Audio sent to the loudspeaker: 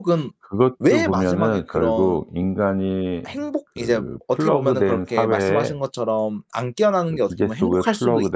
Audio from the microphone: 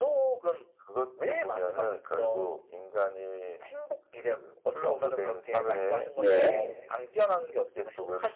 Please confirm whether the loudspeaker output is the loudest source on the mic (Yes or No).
No